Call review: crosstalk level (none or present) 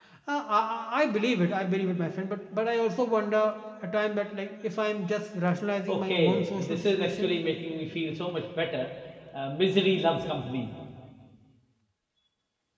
present